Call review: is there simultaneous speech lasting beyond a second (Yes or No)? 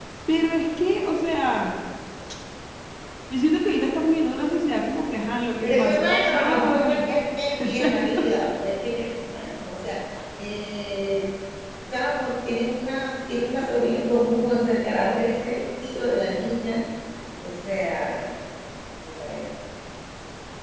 Yes